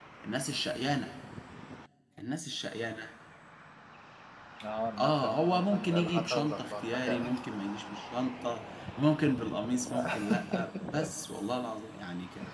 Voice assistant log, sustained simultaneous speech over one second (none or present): present